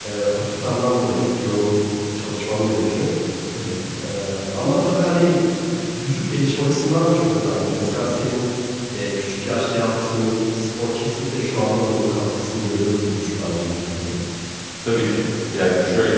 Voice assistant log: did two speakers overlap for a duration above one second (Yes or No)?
No